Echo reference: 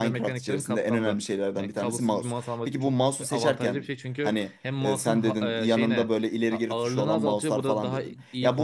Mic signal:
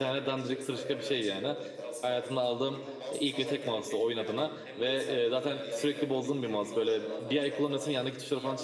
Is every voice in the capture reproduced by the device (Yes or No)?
No